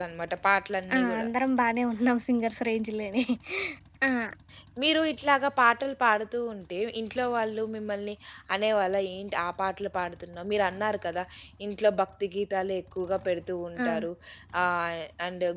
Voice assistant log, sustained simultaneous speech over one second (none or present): none